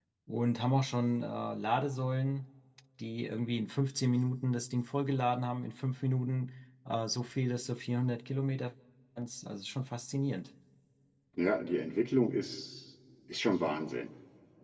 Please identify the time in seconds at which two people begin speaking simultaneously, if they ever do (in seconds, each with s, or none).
none